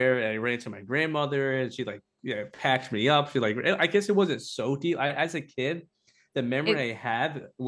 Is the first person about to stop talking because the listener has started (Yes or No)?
No